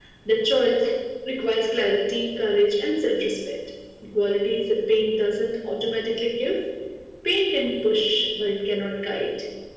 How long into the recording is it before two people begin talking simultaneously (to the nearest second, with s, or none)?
none